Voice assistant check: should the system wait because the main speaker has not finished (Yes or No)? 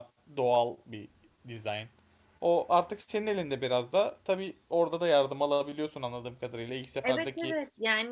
No